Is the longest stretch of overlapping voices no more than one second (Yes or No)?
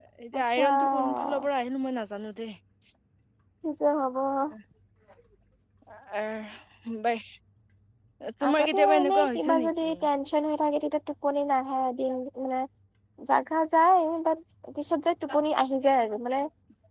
No